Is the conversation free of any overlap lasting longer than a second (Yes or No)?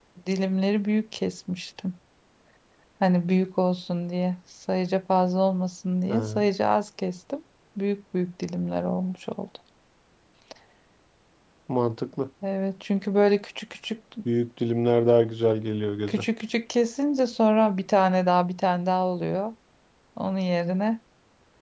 Yes